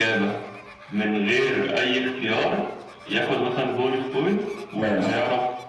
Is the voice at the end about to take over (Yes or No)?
No